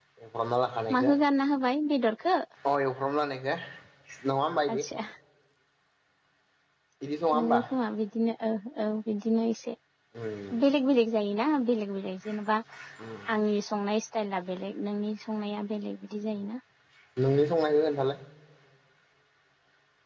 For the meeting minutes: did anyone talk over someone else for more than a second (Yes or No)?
No